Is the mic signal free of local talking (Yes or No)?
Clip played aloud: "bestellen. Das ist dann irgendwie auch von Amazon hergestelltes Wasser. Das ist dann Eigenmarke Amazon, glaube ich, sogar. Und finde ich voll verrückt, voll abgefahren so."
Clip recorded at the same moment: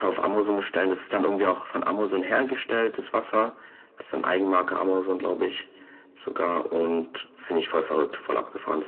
Yes